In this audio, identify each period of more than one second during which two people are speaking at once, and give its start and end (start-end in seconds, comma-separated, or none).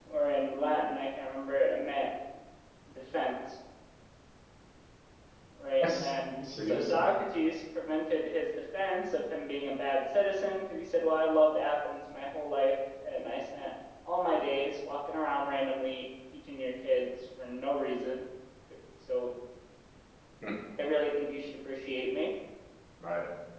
5.8-7.1